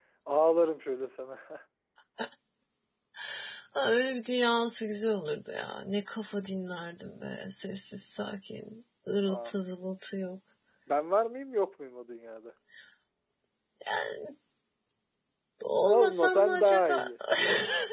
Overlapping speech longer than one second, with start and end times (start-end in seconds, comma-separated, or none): 15.8-17.1